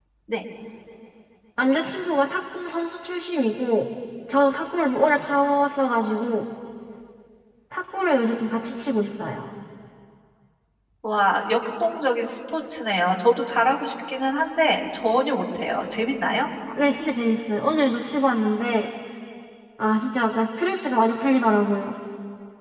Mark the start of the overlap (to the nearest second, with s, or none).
none